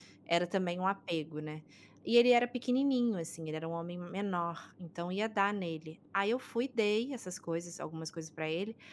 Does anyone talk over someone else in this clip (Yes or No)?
No